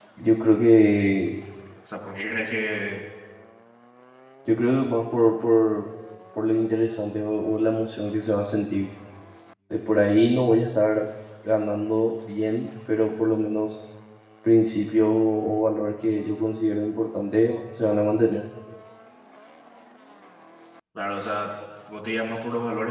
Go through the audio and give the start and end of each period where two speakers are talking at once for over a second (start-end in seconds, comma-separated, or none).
none